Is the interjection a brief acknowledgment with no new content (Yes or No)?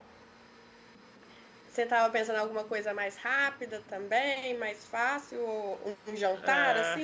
No